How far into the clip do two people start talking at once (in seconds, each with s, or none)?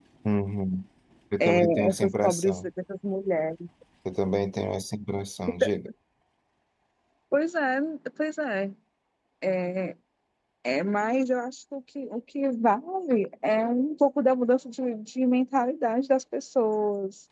1.4 s